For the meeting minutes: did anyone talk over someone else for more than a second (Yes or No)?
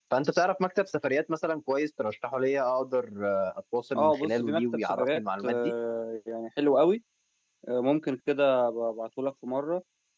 Yes